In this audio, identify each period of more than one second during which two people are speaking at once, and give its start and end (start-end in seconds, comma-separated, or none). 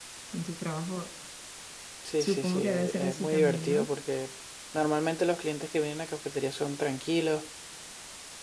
2.2-3.9